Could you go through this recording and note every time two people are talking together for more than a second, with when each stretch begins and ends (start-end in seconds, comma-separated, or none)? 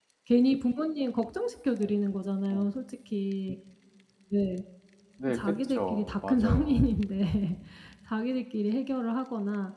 5.3-6.9